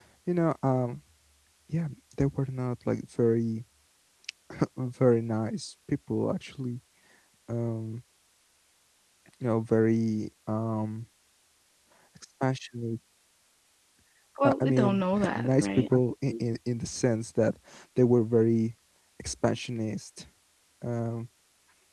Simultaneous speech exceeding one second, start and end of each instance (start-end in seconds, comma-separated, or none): 14.4-15.9